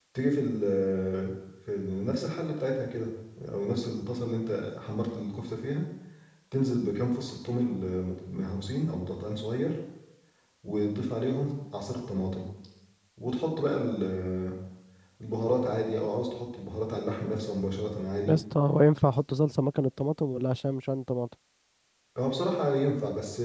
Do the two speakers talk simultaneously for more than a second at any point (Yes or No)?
No